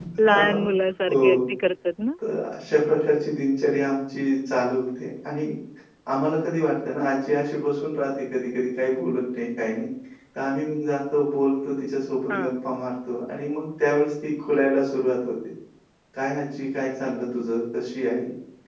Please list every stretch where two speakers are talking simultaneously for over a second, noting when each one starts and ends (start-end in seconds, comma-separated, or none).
none